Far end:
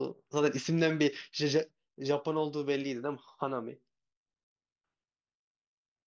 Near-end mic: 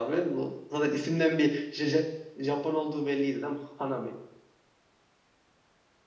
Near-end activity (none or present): none